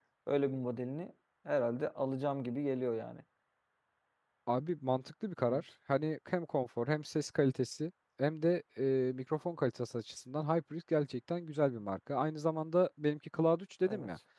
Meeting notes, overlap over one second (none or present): none